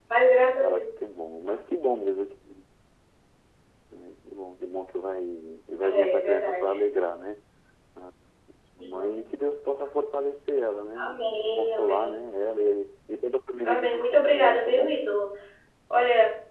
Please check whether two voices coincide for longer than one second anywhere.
Yes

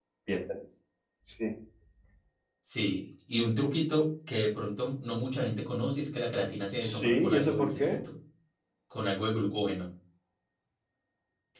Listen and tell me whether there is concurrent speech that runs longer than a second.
Yes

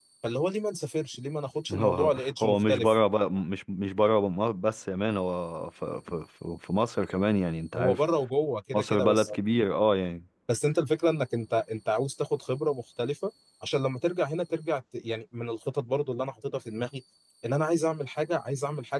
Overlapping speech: Yes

